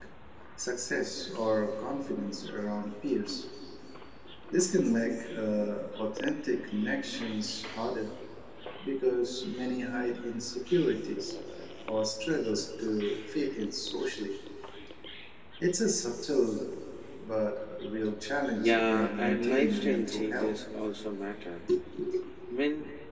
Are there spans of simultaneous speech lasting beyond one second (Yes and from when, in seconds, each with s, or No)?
Yes, from 18.6 s